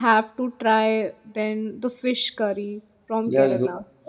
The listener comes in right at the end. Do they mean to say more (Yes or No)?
Yes